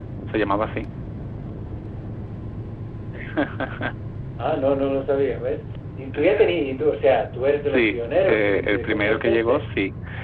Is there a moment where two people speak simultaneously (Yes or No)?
Yes